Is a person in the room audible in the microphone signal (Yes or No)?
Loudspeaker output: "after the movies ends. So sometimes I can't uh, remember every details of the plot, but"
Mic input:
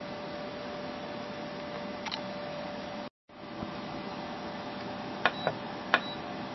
No